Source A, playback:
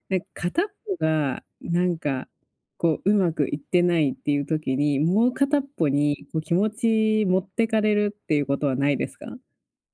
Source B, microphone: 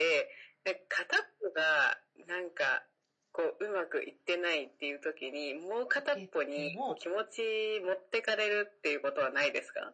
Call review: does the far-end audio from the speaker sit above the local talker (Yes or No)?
Yes